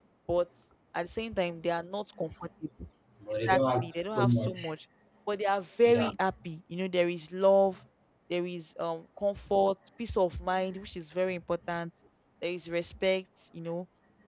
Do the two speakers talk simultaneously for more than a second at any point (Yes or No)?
Yes